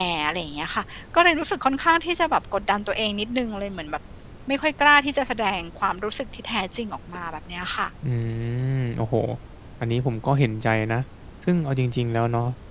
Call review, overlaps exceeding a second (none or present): none